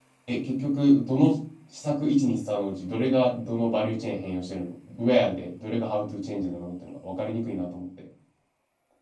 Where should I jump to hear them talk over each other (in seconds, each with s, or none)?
none